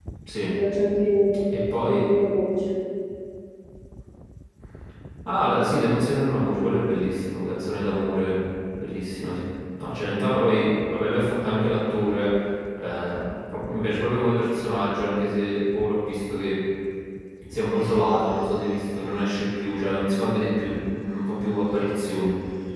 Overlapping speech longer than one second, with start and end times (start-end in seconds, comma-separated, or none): none